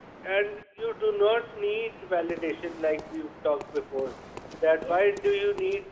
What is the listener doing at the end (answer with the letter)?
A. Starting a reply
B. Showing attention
B